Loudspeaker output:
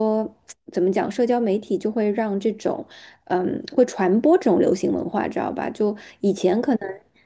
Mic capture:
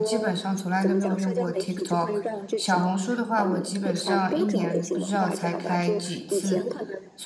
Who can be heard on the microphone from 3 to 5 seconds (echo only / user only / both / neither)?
both